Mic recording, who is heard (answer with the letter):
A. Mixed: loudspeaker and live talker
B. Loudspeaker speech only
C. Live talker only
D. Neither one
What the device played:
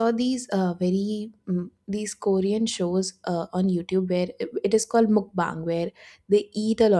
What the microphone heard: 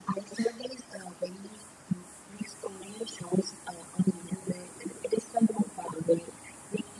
B